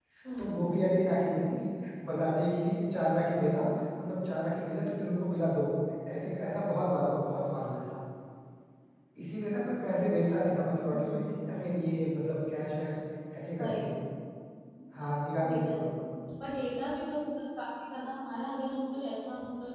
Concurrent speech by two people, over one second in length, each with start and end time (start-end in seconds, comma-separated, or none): none